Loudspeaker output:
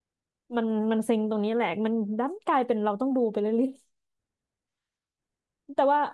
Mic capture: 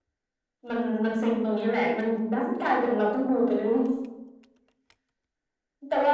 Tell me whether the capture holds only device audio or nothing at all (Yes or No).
Yes